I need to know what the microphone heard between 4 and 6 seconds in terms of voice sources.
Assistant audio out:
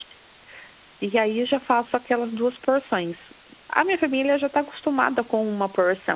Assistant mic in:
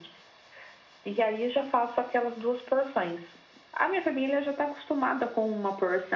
echo only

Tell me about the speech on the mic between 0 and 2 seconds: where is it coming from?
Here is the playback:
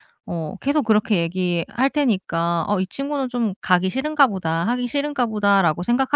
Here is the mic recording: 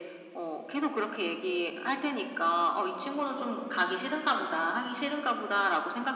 echo only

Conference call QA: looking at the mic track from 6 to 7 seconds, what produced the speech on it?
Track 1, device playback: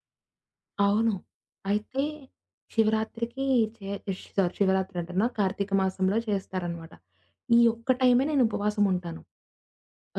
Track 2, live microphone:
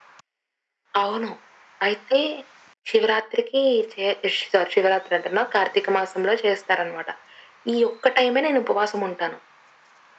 echo only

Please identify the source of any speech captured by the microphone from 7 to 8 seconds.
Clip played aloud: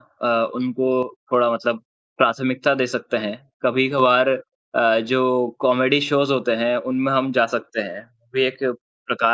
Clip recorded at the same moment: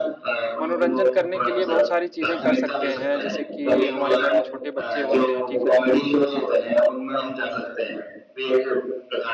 echo only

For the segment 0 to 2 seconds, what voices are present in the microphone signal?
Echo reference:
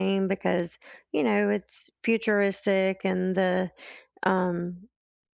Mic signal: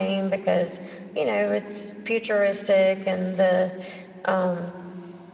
echo only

